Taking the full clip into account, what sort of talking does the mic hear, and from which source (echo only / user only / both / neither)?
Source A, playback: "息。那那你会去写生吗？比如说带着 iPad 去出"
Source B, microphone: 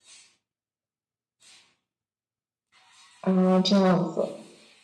user only